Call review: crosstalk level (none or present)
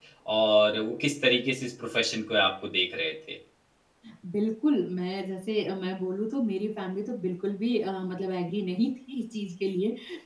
none